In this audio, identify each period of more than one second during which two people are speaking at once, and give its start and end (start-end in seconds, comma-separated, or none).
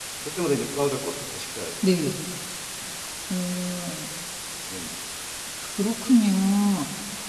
none